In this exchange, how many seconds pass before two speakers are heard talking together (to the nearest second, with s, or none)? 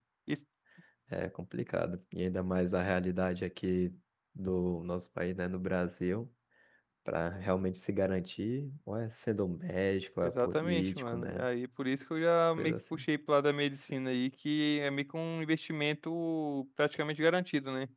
10 s